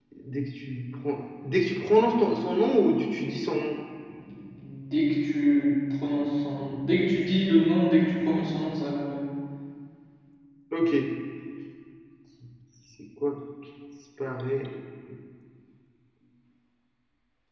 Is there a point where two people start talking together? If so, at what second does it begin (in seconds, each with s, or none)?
none